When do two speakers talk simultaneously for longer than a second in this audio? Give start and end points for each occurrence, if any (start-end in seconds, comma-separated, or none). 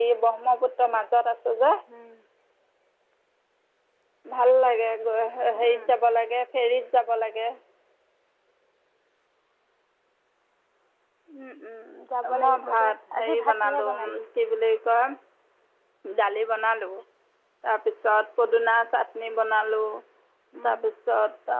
12.4-13.9